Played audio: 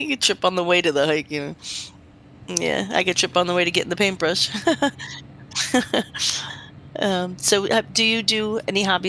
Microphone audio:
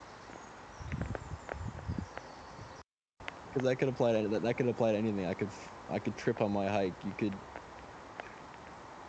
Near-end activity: present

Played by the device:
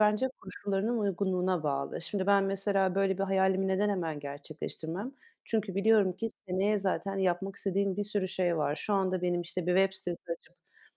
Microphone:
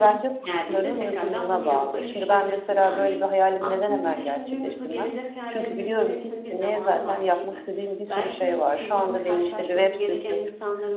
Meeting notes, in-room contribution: present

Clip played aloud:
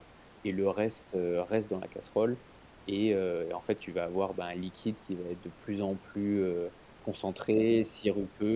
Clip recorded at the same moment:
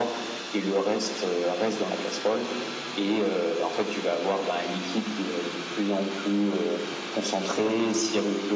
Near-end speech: none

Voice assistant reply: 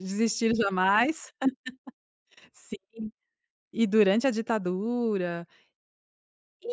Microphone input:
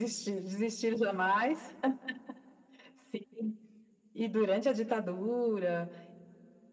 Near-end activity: none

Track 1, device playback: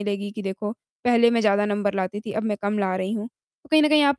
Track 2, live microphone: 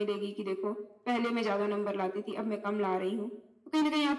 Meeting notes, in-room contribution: none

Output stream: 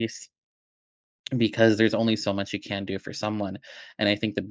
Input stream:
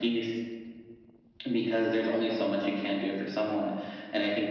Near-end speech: none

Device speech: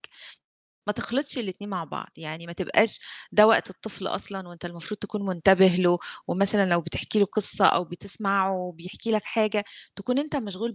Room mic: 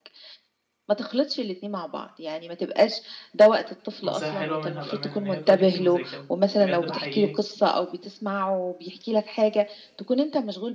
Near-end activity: present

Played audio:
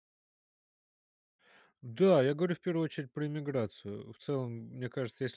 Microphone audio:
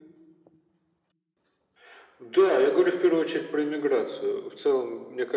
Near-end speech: none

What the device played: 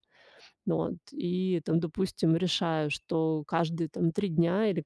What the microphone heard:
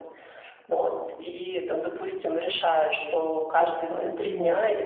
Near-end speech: present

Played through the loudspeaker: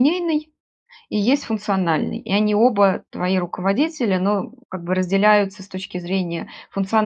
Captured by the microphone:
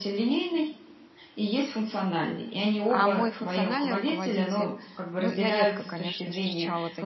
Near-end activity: present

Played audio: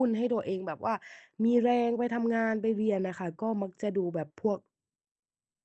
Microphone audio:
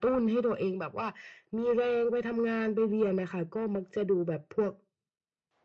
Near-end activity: none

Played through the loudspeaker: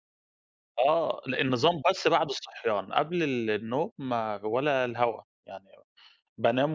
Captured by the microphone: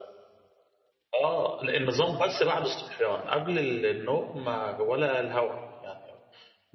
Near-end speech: none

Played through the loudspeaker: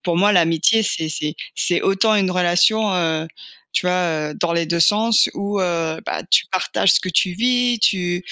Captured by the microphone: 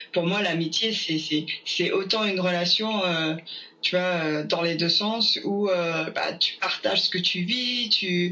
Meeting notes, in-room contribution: none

